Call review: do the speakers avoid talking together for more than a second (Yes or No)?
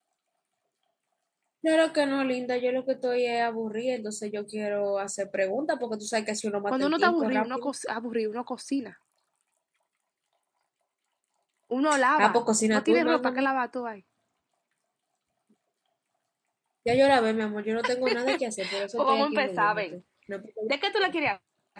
No